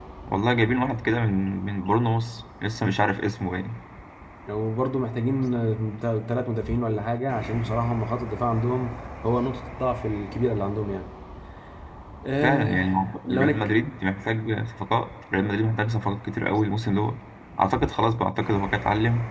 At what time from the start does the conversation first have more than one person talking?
12.4 s

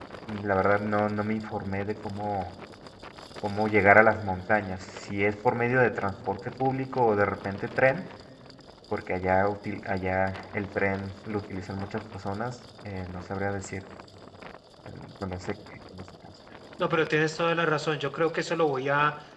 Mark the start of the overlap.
none

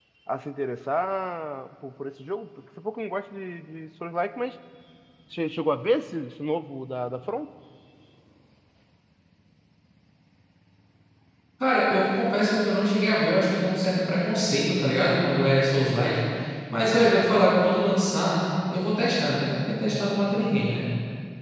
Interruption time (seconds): none

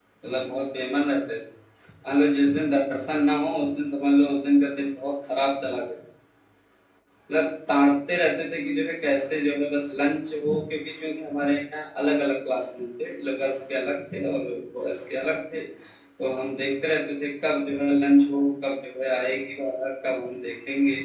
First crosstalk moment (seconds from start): none

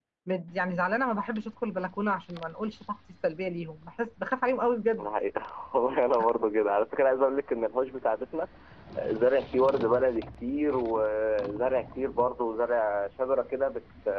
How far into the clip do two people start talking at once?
none

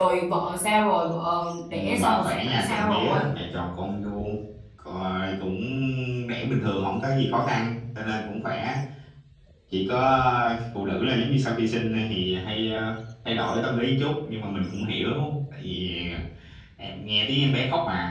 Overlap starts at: 1.7 s

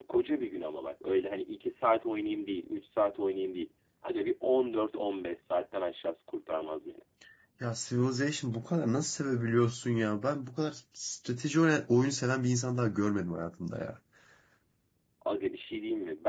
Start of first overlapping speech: none

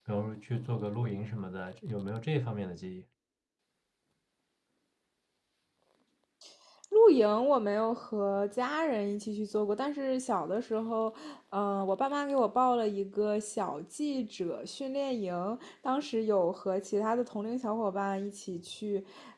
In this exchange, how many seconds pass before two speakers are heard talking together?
none

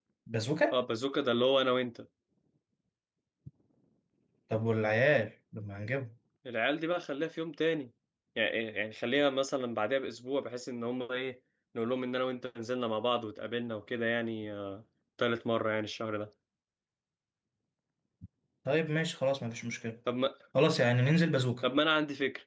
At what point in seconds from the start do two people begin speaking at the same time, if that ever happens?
none

